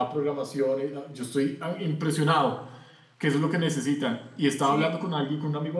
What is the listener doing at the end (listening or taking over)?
listening